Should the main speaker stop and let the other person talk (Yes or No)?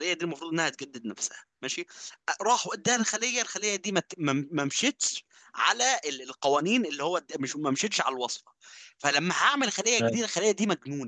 No